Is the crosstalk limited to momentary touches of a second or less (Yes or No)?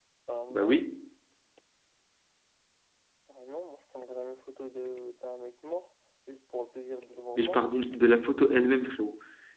Yes